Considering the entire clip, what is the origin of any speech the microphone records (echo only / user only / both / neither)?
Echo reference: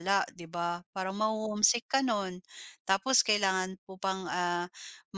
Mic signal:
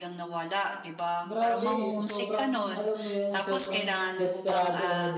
both